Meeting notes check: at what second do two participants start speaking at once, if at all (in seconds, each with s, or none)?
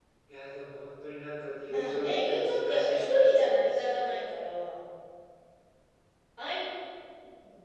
1.6 s